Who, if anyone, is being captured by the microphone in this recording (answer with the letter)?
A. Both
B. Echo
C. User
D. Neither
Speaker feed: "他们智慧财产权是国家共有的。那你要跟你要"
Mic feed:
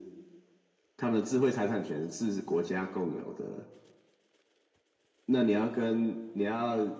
B